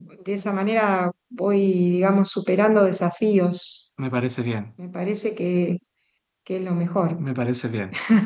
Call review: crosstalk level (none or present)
none